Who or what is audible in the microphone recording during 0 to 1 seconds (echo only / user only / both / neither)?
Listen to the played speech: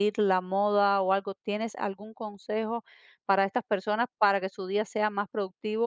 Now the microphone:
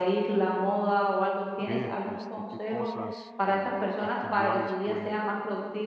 echo only